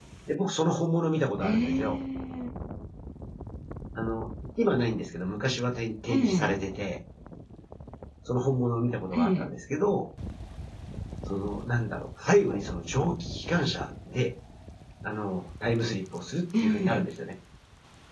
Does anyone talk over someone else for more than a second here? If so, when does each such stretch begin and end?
none

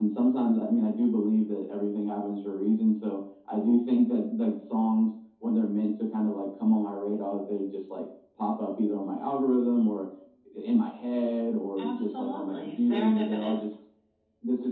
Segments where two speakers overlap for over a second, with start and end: 11.8-13.7

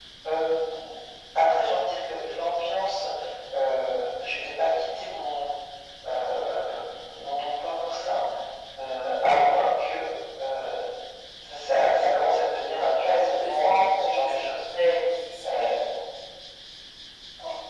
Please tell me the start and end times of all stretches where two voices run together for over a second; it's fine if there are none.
13.0-14.4

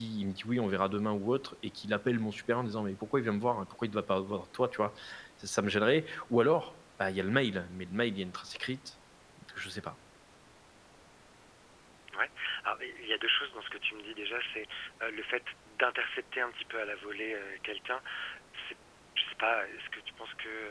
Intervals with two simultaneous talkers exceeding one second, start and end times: none

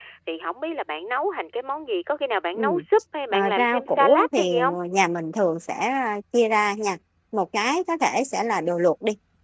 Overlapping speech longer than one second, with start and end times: 3.3-4.7

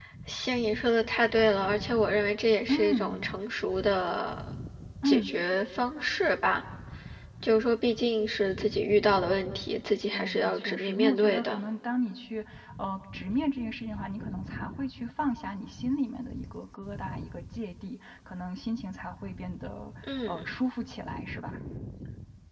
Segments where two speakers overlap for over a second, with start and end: 10.1-11.6

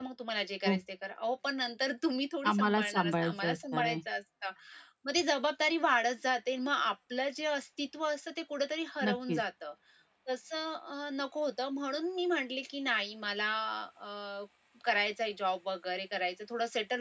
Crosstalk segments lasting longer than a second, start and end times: 2.5-4.0

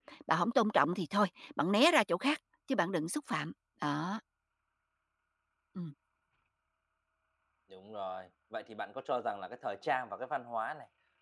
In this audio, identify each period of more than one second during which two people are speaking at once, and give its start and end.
none

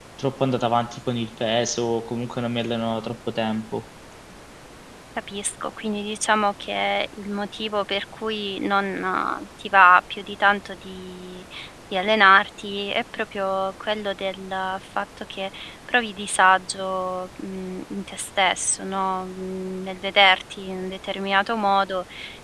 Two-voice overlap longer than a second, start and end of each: none

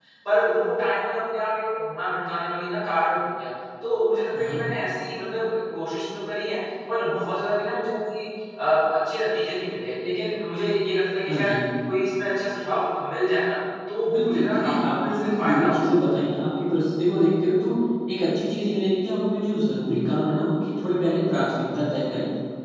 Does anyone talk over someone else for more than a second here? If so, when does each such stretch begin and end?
14.1-15.9

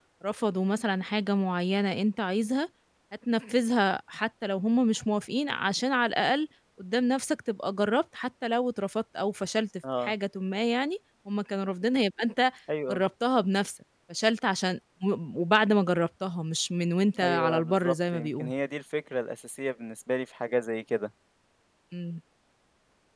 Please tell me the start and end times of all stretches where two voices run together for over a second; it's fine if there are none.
17.2-18.5

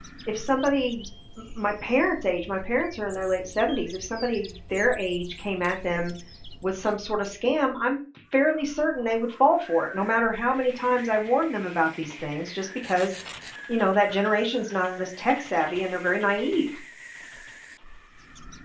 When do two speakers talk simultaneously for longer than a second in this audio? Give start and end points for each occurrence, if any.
none

